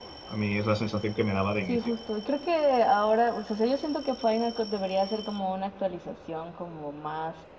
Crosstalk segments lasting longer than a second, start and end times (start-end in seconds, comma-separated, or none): none